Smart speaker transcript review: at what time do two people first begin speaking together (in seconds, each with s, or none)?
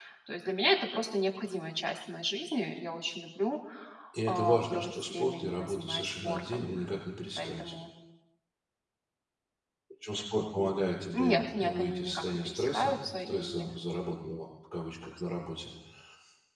4.3 s